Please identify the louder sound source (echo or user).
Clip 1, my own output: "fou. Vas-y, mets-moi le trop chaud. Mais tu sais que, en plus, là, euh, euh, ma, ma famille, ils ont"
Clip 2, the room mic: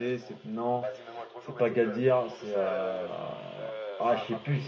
user